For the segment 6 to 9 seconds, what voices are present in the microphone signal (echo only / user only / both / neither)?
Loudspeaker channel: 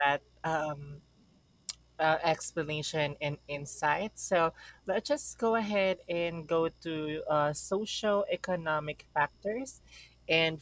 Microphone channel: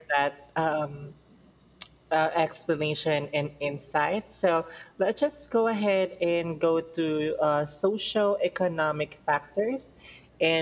echo only